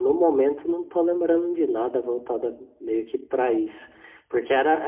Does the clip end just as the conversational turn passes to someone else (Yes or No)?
No